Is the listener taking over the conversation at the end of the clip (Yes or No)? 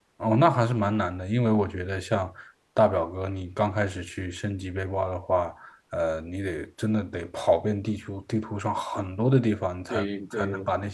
No